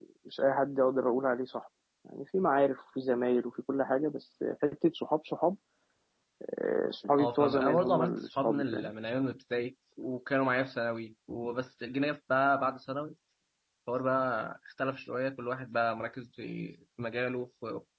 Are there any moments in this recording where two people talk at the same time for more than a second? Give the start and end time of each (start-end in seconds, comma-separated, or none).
7.2-8.9